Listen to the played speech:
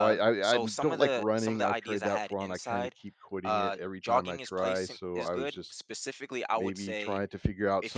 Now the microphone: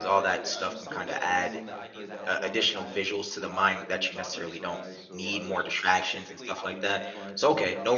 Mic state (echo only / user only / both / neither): both